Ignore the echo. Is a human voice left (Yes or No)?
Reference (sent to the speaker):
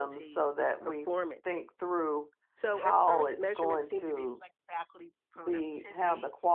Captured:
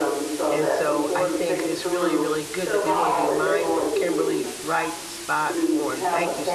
Yes